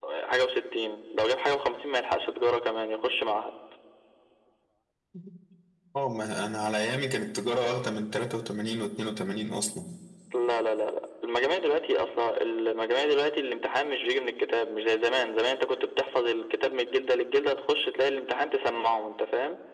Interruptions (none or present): none